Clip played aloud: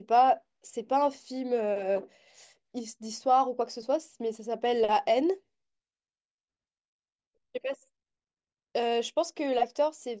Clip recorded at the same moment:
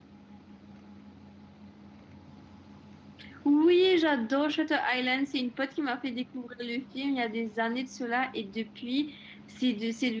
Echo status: none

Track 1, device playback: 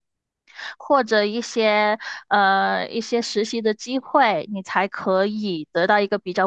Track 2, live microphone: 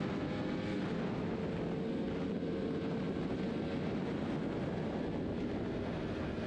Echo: none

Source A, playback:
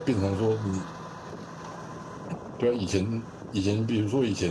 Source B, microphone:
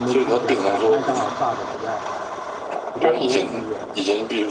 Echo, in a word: present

